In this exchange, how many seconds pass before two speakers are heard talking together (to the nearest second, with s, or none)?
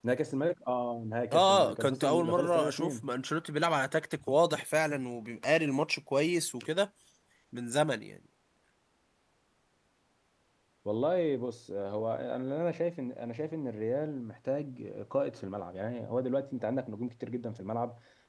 1 s